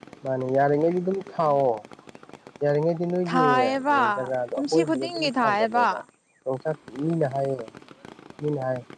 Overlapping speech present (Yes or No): Yes